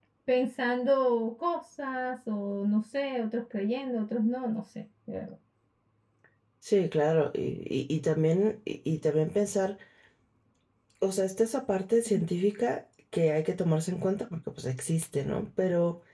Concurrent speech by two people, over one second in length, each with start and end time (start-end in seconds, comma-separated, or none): none